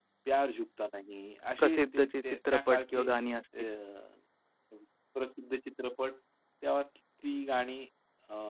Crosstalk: present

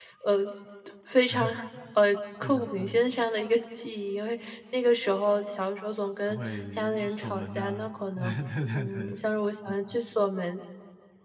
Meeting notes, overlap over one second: present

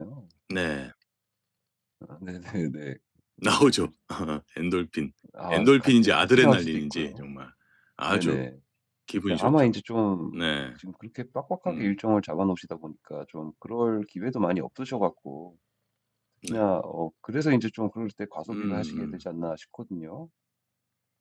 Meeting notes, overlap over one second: present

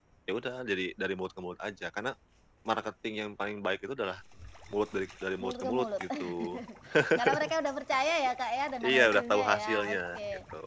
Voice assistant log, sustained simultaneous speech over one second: present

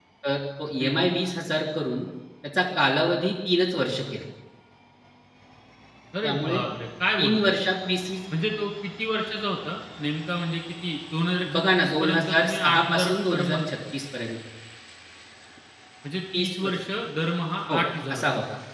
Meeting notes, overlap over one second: present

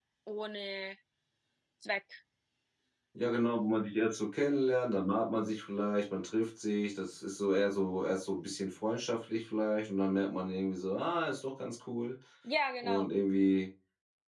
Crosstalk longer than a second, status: none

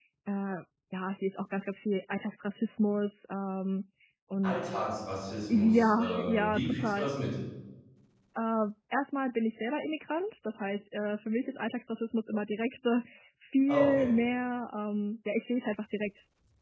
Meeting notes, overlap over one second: present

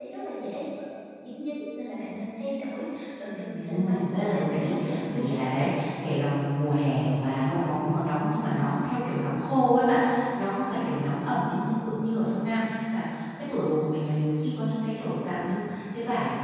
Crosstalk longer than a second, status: present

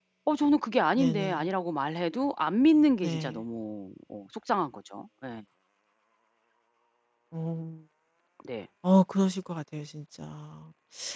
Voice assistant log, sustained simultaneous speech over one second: none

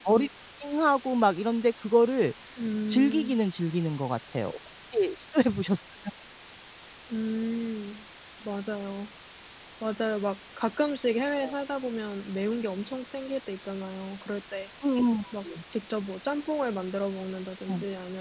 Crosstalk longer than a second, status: none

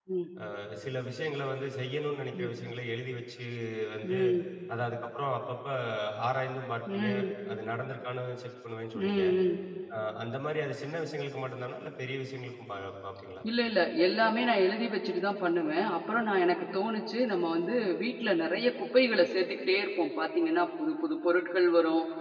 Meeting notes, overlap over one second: none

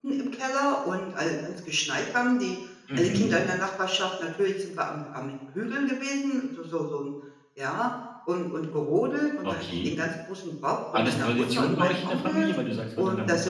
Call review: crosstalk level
present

